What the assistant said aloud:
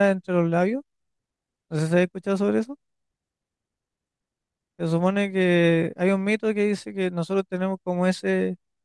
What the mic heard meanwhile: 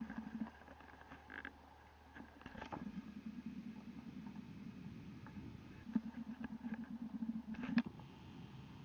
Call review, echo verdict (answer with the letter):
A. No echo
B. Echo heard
A